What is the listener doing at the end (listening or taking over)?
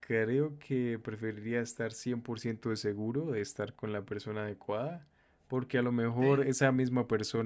listening